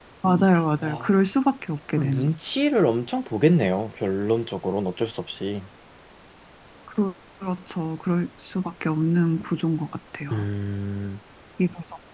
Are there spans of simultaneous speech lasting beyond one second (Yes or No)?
No